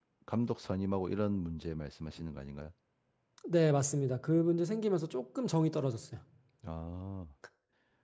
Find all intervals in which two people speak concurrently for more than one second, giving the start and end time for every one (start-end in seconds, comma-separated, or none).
none